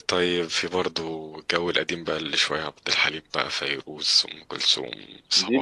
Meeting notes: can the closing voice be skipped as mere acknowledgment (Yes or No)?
No